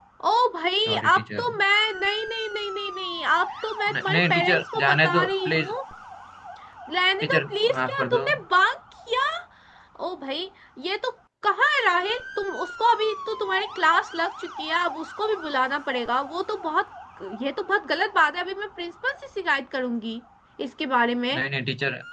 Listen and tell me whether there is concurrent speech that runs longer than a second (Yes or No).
Yes